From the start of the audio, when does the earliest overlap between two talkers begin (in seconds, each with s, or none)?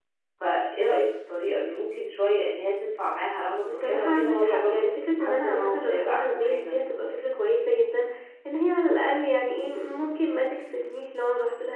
3.6 s